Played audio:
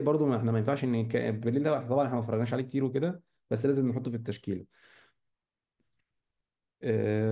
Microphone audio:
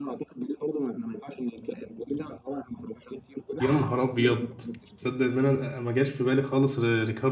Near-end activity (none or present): present